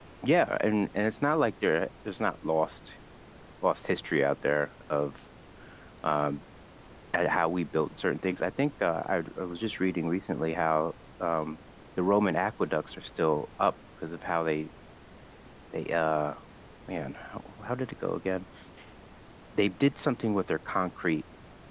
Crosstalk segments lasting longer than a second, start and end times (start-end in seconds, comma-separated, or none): none